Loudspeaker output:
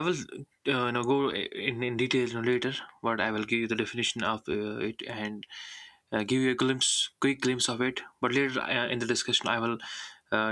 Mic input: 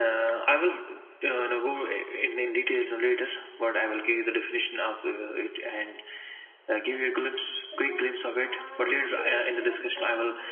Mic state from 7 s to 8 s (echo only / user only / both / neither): both